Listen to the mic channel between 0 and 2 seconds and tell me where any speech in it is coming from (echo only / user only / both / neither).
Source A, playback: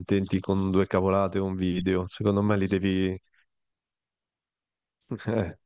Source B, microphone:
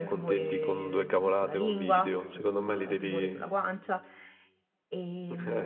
both